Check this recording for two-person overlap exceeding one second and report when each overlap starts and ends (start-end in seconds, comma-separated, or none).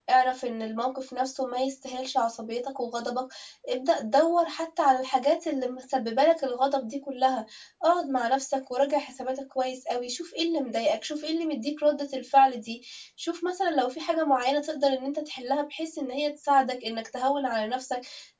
none